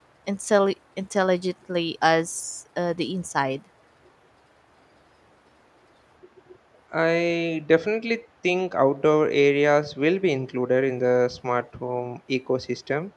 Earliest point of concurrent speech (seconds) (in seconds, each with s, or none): none